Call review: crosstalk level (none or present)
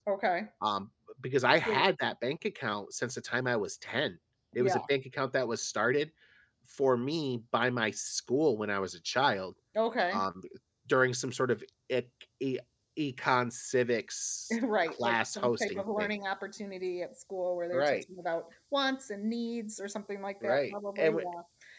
present